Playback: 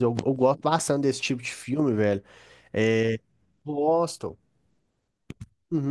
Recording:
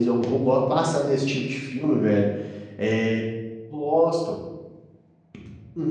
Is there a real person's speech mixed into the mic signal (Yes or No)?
No